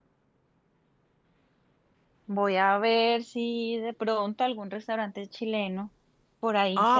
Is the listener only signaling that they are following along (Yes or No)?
No